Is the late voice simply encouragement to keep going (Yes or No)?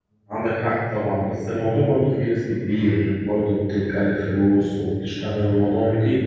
No